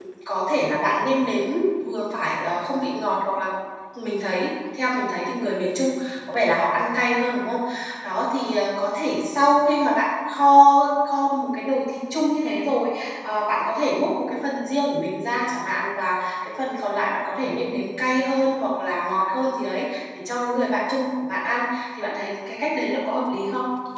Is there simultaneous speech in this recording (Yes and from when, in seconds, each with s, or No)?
No